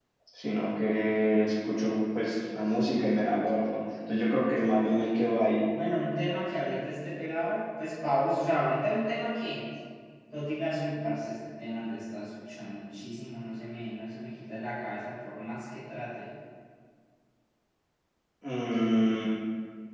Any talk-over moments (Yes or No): No